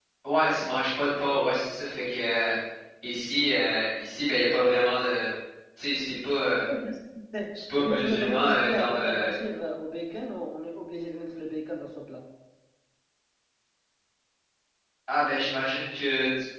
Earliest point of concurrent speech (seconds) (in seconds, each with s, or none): 7.8 s